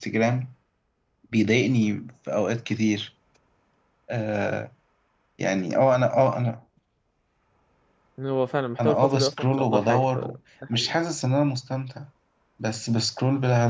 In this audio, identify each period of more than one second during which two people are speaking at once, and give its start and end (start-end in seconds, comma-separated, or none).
8.8-10.2